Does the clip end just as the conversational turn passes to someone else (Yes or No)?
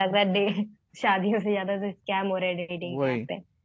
Yes